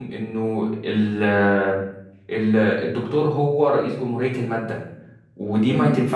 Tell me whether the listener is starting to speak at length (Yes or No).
No